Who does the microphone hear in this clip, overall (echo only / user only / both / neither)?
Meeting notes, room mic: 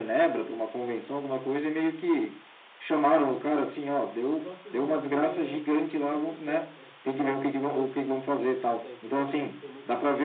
both